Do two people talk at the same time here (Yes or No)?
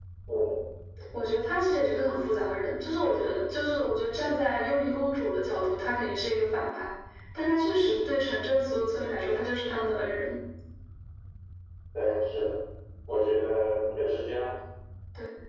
No